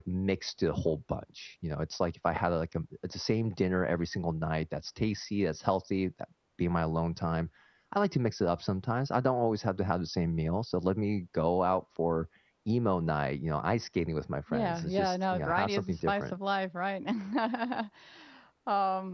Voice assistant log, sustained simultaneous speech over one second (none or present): present